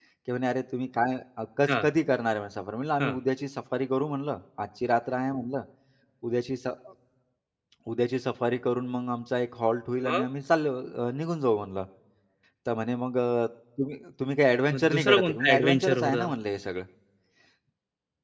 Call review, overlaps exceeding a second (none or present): present